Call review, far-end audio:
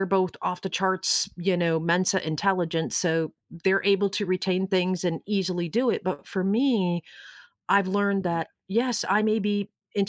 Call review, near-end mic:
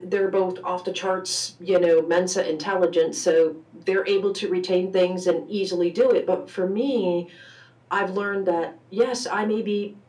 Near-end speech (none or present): none